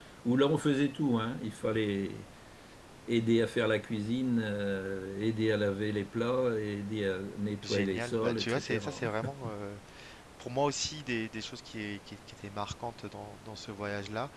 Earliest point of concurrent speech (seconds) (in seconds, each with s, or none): 7.6 s